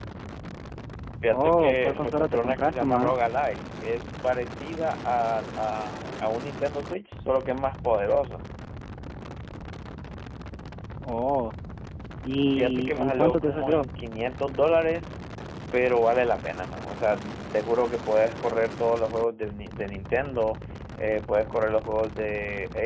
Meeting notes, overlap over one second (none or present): present